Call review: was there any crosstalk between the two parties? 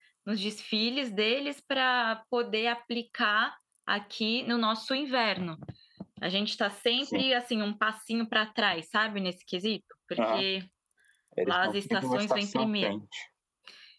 Yes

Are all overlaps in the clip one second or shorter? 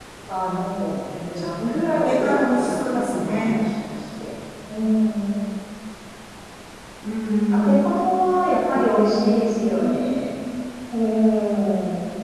No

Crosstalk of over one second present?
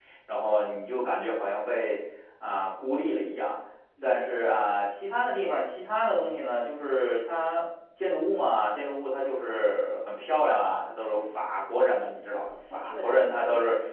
Yes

